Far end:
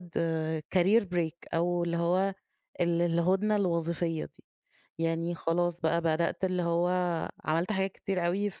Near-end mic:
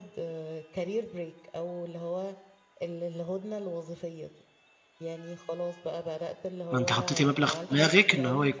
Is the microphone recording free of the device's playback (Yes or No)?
No